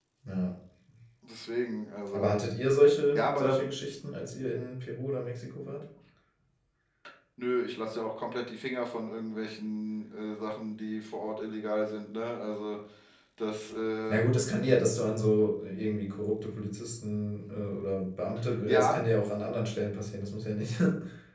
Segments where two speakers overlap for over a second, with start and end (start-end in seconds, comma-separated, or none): none